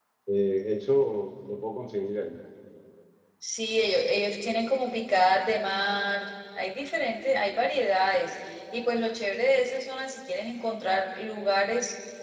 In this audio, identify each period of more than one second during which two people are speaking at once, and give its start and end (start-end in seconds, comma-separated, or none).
none